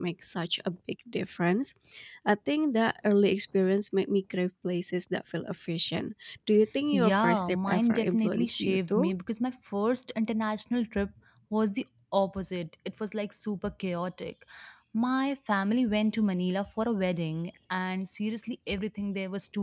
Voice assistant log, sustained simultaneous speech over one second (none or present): present